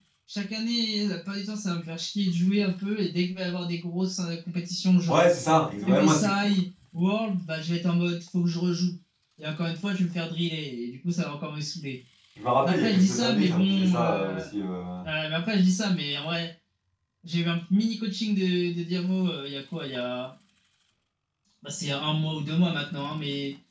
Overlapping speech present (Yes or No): Yes